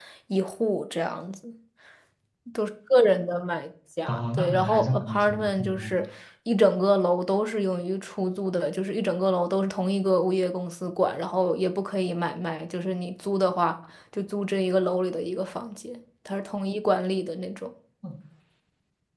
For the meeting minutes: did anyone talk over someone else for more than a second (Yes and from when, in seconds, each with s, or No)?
Yes, from 4.1 s